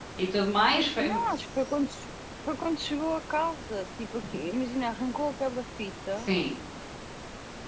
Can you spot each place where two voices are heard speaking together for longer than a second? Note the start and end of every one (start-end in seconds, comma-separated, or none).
none